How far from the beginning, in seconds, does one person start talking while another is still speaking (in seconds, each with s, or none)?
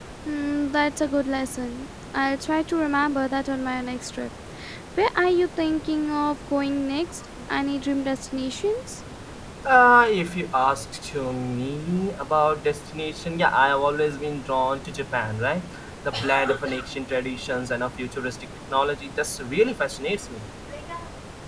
none